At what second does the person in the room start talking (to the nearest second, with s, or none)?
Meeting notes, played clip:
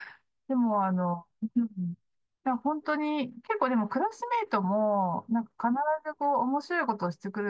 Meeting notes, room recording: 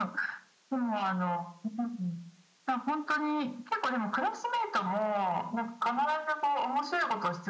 none